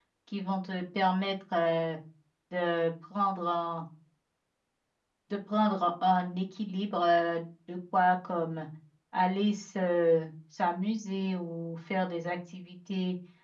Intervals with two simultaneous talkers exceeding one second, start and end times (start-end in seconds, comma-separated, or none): none